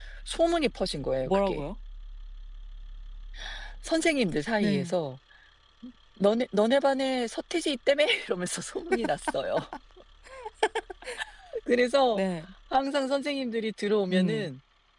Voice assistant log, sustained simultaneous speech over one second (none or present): none